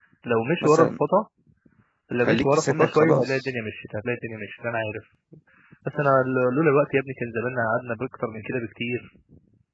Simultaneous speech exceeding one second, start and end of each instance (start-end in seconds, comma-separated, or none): 2.2-3.5